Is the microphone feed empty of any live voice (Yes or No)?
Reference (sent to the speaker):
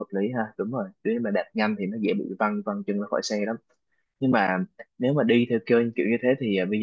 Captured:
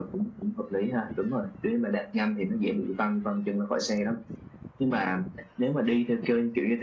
Yes